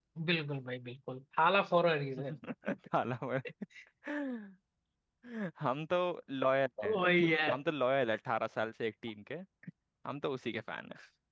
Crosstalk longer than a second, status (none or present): none